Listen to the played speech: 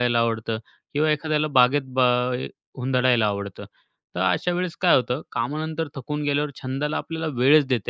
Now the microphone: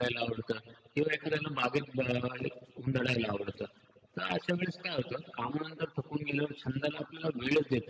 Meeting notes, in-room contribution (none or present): none